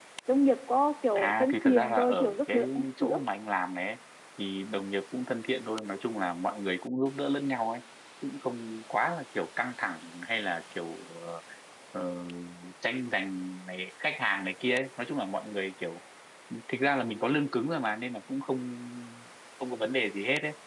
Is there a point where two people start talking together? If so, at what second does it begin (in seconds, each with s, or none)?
1.1 s